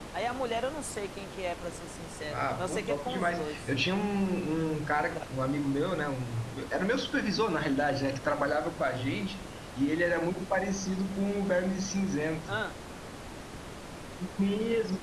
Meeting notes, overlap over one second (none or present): present